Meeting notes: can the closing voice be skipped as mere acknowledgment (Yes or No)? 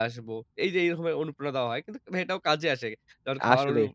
Yes